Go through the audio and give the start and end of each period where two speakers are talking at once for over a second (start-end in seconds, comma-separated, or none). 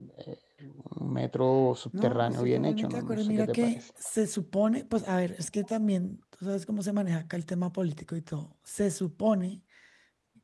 2.0-3.7